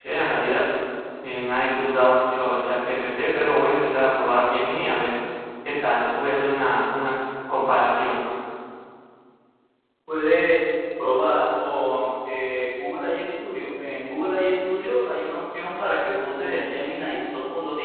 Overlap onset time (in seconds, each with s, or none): none